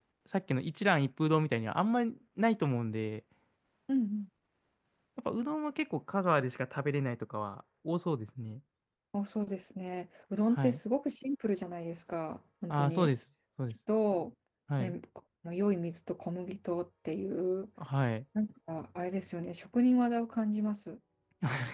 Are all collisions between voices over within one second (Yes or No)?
Yes